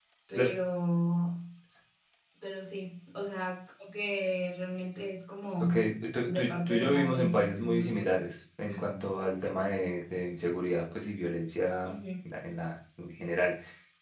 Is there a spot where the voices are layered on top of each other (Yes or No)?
Yes